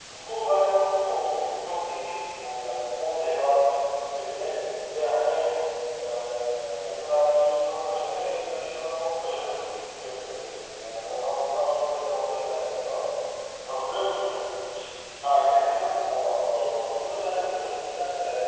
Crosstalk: present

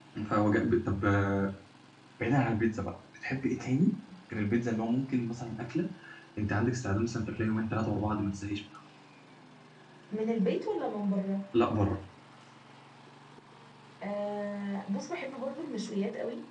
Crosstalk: none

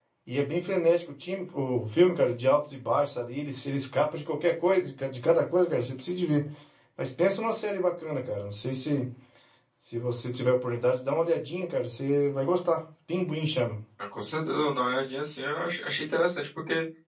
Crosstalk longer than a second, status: none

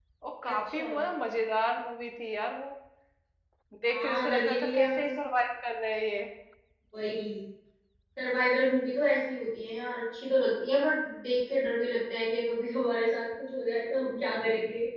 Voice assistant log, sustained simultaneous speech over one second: present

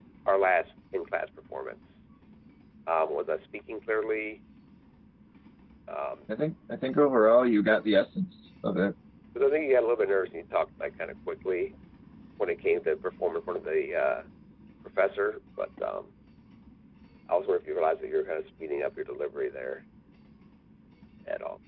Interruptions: none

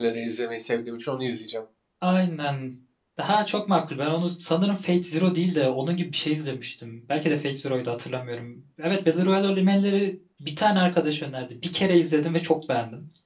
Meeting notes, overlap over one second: none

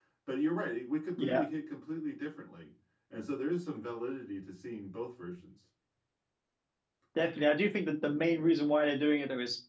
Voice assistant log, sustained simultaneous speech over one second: none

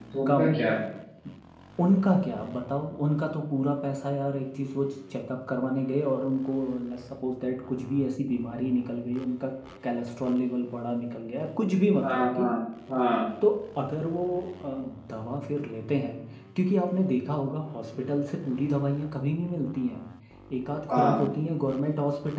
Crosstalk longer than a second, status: none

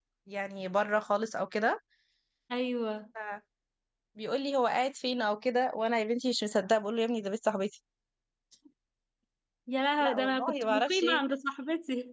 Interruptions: present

